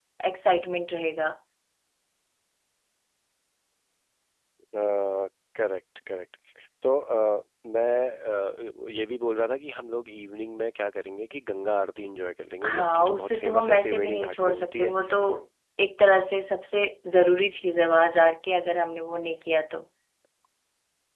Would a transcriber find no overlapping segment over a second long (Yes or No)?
No